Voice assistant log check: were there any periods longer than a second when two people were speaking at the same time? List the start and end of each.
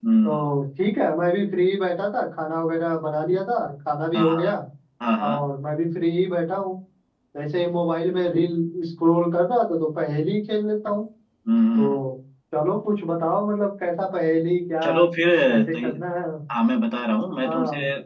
none

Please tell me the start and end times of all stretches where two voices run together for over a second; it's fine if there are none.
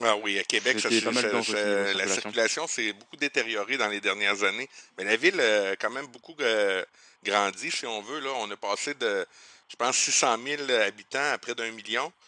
0.5-2.3

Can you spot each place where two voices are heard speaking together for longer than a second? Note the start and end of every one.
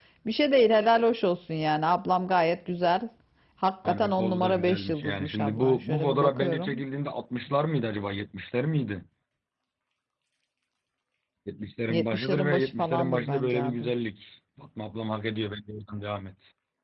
3.9-6.7, 11.9-13.9

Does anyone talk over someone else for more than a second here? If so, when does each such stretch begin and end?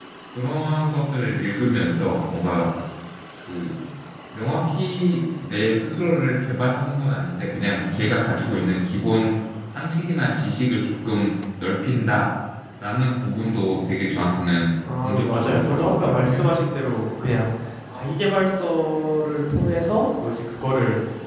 15.0-16.4

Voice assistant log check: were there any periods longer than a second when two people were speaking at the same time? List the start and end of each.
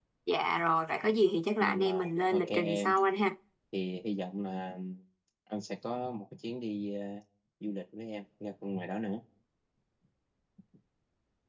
1.6-2.9

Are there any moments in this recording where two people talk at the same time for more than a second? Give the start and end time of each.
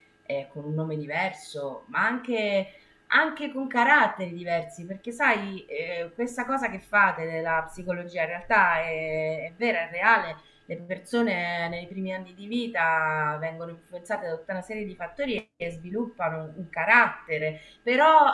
none

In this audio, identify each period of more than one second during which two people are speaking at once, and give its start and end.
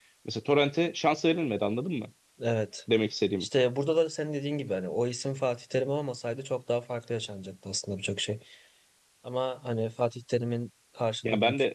none

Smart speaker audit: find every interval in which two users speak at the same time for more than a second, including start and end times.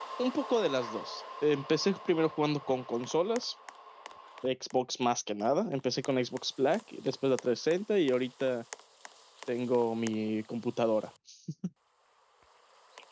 none

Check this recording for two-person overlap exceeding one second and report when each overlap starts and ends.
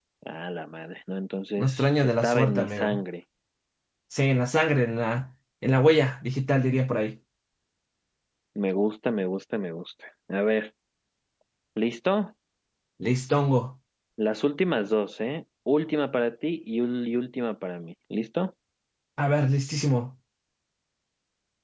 1.6-3.0

